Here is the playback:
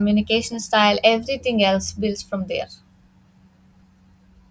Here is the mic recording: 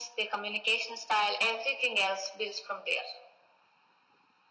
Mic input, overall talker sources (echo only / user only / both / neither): echo only